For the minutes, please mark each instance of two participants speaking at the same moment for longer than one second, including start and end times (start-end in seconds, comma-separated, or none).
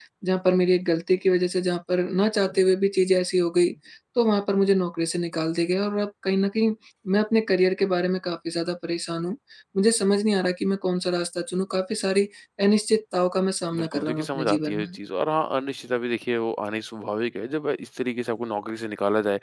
13.7-15.0